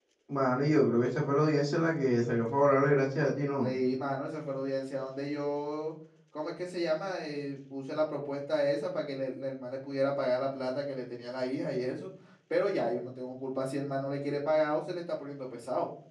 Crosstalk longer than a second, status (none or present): none